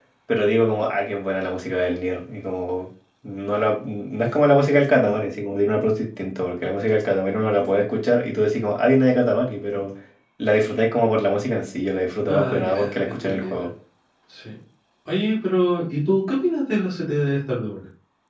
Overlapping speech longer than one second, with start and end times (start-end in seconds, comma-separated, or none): 12.3-13.7